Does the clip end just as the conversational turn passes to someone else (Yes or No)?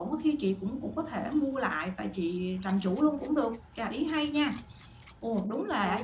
Yes